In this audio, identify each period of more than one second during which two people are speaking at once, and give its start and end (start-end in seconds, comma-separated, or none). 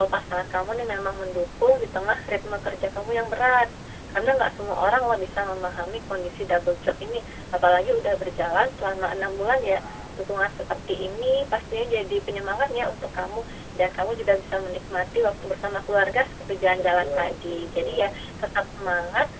17.0-18.2